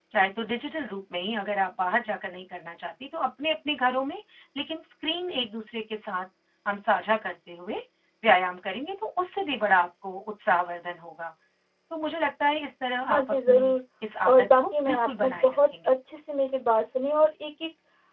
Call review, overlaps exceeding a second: present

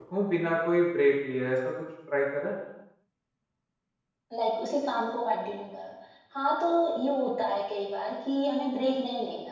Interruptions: none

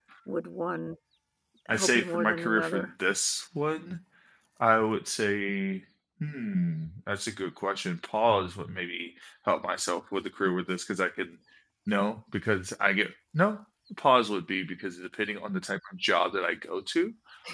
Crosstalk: present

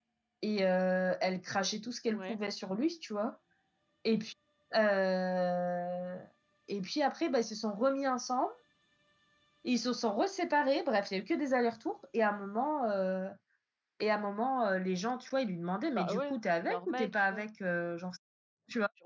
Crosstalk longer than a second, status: present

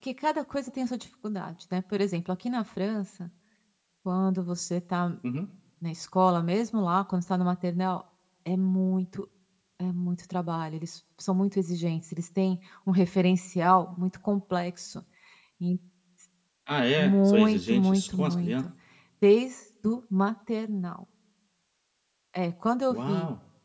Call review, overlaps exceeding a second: present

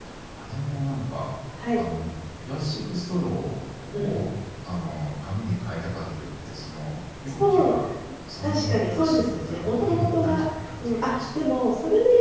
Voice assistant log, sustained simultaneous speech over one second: present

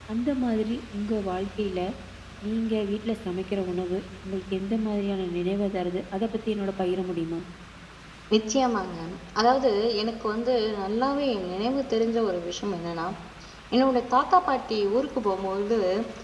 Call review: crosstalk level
none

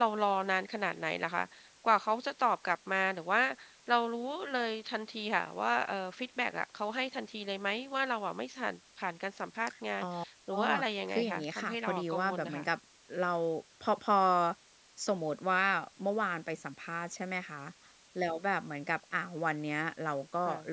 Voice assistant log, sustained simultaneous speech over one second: present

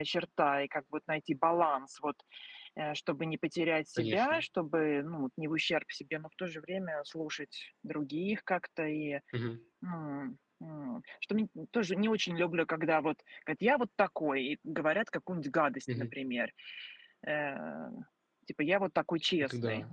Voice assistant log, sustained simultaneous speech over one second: none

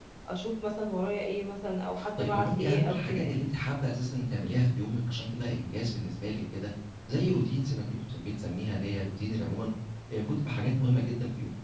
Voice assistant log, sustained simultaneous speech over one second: present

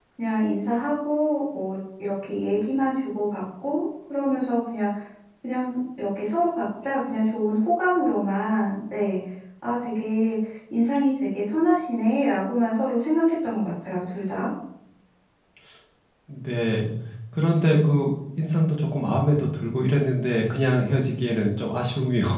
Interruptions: none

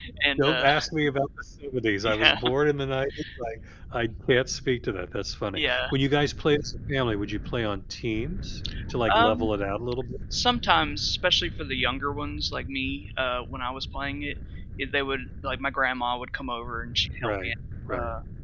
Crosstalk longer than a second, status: none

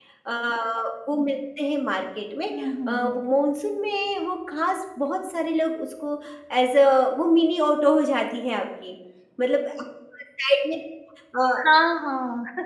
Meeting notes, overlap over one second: none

